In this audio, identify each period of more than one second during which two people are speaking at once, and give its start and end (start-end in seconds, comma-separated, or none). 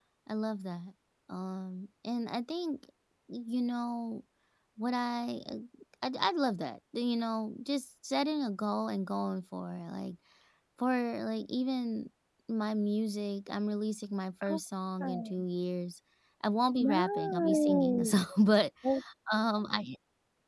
16.8-18.2